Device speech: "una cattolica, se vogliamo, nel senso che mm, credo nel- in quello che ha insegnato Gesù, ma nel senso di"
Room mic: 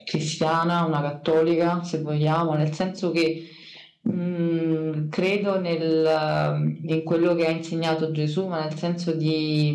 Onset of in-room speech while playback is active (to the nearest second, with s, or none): none